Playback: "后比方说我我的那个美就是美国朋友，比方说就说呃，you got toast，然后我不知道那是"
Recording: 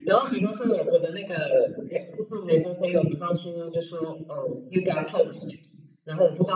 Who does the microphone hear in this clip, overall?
echo only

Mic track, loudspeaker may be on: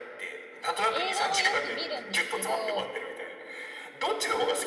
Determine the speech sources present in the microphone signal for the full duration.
both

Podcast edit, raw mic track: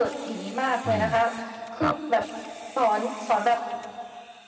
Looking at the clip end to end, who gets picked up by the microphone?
both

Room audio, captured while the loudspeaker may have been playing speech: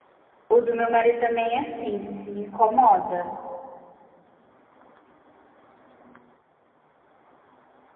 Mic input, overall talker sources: user only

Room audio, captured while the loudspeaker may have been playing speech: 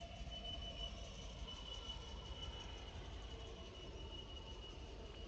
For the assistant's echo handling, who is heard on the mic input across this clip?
neither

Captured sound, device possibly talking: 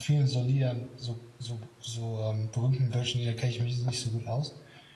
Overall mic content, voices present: user only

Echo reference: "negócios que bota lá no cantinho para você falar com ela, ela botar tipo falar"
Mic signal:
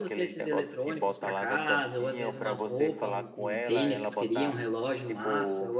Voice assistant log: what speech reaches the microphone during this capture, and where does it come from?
both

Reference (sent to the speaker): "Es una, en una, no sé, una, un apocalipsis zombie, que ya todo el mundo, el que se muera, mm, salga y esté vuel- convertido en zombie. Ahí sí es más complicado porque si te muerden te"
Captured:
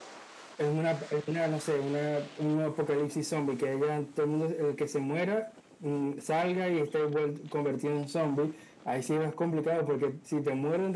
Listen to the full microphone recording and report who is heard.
echo only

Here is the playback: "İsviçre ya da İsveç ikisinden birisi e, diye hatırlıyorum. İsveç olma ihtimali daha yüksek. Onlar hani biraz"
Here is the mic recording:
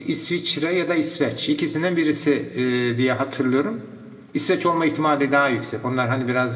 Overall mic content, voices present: echo only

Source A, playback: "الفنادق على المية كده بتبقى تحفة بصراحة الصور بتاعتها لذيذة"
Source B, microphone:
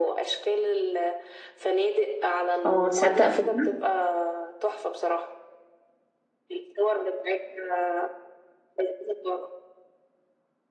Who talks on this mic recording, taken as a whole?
both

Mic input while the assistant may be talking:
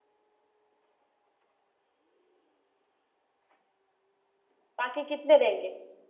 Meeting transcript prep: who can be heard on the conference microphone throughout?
user only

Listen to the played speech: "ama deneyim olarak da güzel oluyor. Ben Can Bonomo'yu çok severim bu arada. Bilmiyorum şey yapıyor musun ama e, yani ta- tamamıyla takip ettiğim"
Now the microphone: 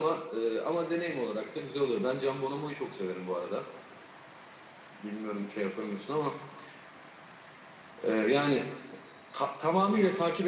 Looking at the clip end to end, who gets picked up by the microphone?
echo only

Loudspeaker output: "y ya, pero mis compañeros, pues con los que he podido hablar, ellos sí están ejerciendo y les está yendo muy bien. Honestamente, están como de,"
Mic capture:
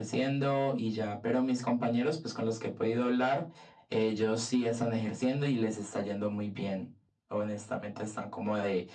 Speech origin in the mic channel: echo only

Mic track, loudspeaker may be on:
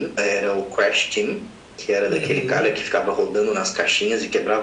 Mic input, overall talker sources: both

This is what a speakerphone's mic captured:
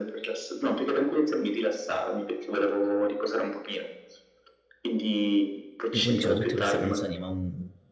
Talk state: both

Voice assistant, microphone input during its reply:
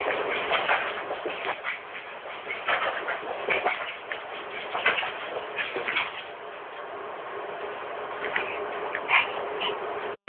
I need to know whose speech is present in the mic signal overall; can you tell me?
neither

